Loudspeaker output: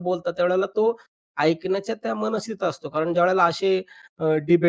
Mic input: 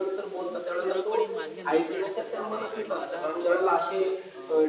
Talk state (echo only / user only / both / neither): both